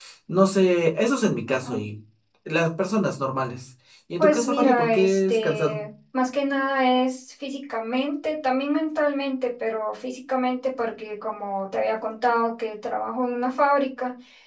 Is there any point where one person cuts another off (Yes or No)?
Yes